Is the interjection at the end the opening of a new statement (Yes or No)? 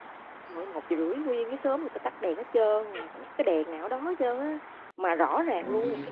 No